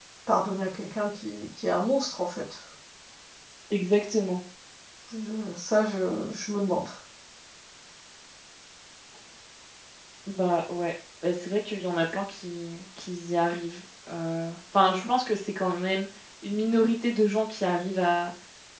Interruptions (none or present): none